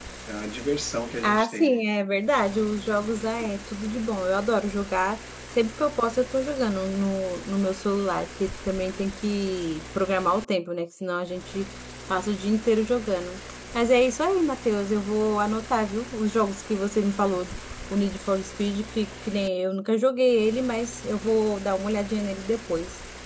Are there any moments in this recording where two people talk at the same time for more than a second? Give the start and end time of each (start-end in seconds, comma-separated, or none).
none